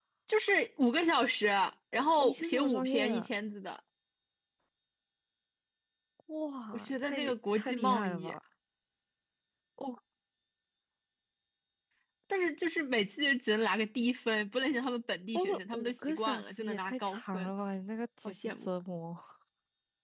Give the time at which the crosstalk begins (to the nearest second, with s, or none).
2 s